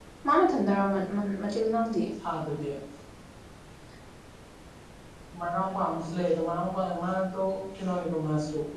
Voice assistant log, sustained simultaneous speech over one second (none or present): none